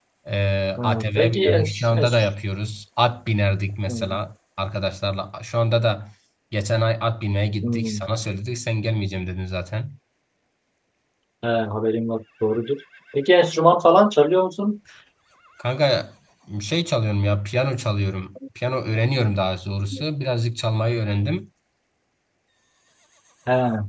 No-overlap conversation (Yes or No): No